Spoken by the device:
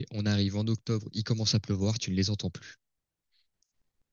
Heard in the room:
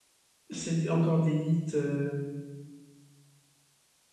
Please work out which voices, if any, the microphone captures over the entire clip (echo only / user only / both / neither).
user only